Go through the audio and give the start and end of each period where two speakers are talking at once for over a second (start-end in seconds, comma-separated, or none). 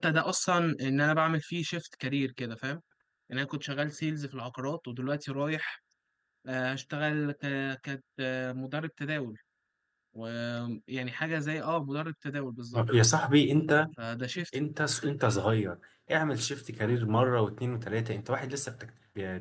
none